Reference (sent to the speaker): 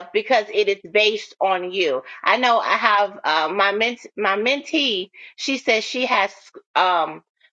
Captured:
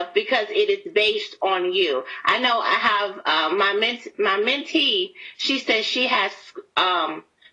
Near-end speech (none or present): none